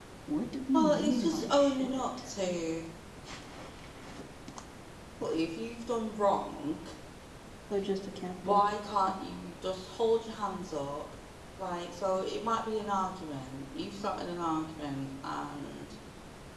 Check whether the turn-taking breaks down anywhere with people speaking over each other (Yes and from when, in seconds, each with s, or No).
Yes, from 0.7 s